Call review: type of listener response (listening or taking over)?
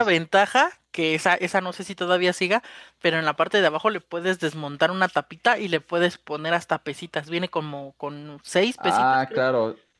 taking over